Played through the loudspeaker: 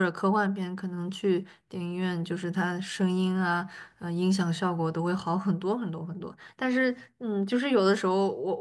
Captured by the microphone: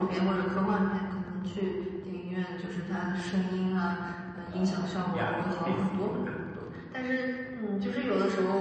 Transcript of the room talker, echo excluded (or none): 啊呀，你可以试试看